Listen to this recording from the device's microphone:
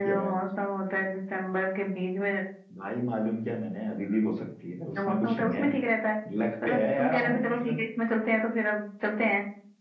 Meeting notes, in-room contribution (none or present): none